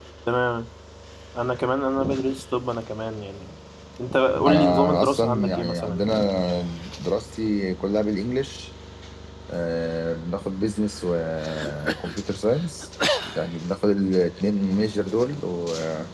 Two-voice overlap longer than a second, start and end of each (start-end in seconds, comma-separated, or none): 4.5-6.1